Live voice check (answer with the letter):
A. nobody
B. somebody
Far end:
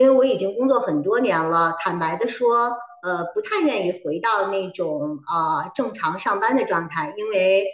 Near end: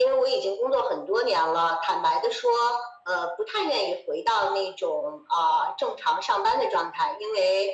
A